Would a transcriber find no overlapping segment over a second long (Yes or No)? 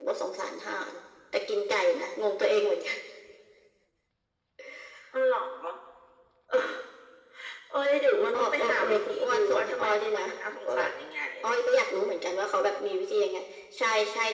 No